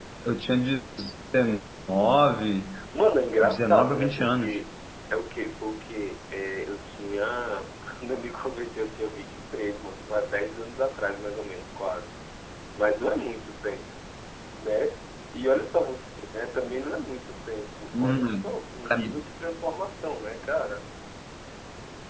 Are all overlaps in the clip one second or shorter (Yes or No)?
No